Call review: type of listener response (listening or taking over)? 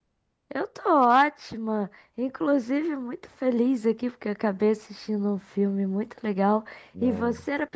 listening